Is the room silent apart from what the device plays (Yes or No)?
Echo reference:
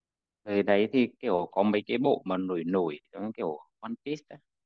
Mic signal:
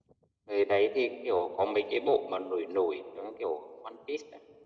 Yes